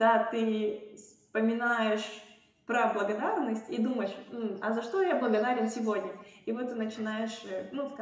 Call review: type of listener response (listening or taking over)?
listening